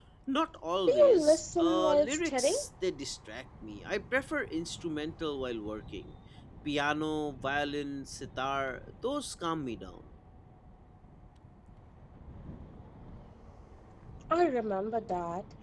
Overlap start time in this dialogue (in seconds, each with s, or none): 0.9 s